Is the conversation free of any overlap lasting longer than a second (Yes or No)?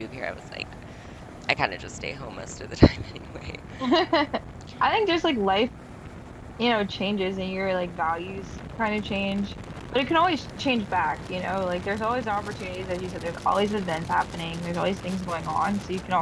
Yes